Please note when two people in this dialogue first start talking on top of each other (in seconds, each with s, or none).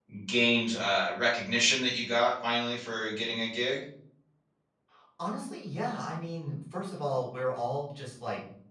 none